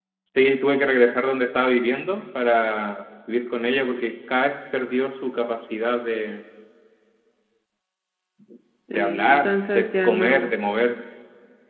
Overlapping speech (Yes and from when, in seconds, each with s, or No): Yes, from 8.9 s